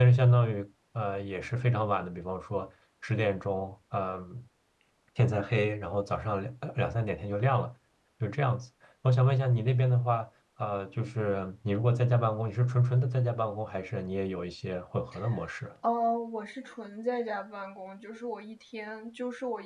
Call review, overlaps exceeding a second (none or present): none